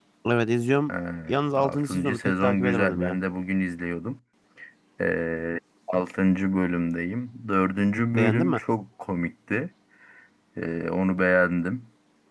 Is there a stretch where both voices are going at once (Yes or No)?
Yes